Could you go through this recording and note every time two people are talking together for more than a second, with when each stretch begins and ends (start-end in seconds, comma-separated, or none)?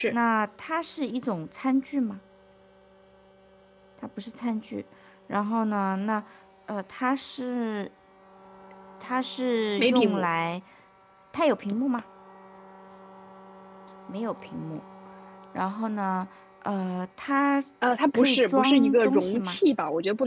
18.1-19.6